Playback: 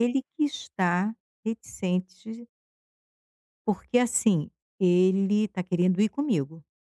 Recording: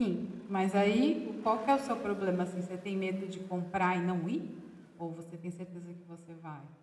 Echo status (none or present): none